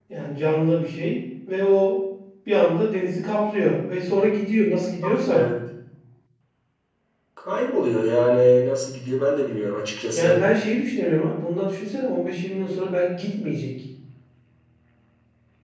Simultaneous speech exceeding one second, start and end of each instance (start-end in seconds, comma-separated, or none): none